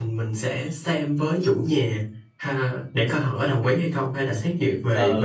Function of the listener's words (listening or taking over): taking over